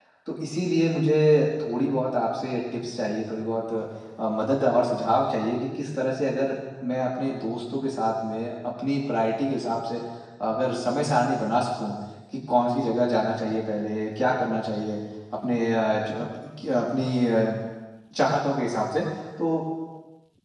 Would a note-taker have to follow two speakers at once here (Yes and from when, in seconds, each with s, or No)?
No